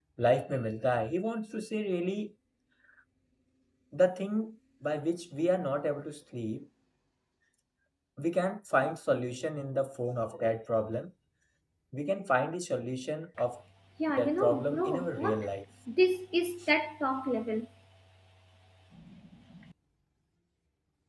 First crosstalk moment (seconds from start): 14 s

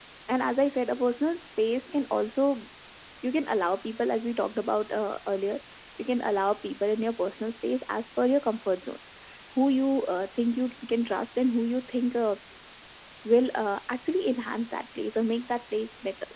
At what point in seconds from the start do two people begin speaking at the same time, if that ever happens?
none

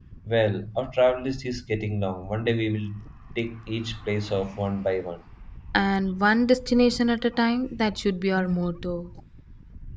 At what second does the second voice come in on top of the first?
none

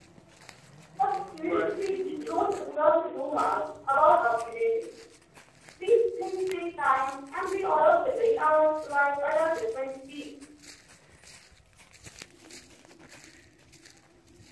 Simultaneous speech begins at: 1 s

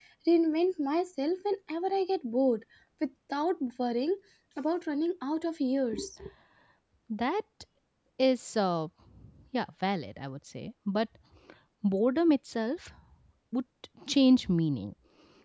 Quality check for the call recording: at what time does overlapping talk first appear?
none

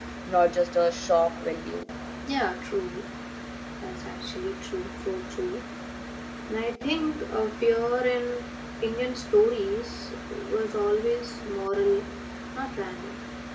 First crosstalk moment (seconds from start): none

